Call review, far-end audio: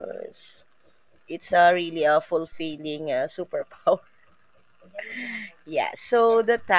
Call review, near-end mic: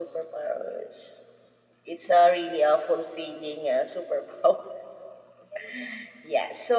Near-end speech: none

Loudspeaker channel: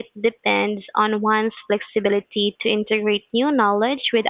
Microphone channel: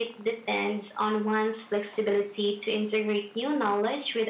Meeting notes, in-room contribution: none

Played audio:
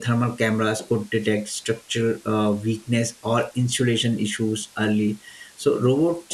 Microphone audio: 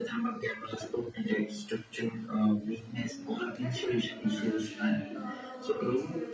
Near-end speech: present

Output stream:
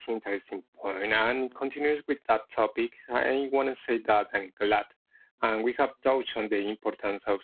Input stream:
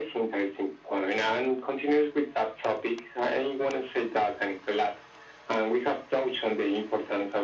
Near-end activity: none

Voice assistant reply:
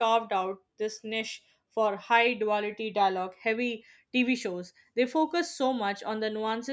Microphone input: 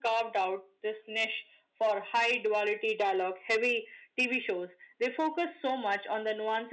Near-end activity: none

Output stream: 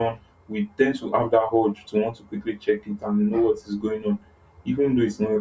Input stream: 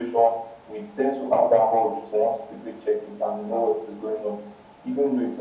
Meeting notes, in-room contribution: none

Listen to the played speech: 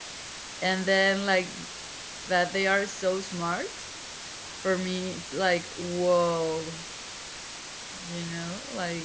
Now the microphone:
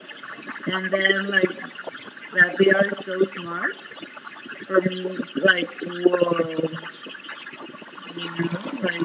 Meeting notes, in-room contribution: none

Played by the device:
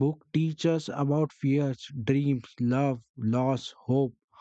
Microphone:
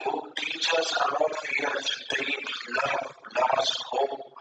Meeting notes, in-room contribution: none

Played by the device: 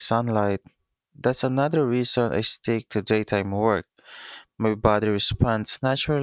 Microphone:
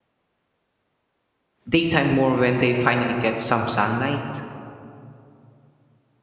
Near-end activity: present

